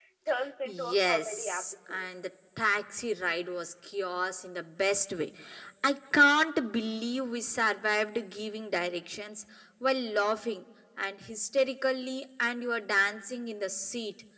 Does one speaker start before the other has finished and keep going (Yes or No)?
Yes